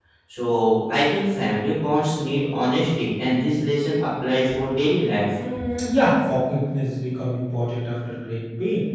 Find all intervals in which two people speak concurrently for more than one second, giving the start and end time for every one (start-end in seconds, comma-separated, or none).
none